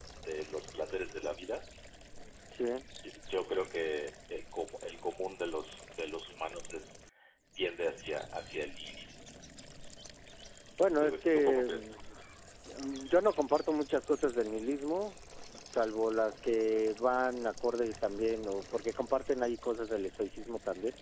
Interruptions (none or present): present